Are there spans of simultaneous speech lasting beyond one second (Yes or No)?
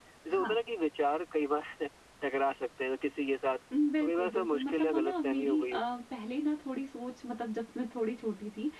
Yes